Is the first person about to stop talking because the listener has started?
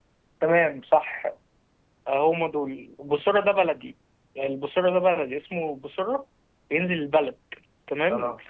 No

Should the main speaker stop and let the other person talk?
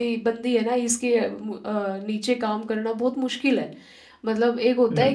No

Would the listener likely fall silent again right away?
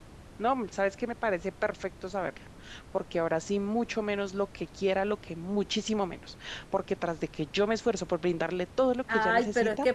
No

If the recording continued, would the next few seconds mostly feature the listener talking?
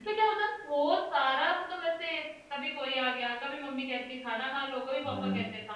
No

